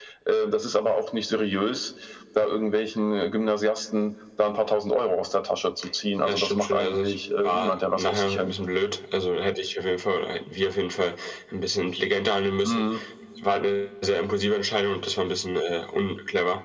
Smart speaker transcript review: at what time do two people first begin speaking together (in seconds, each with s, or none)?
6.2 s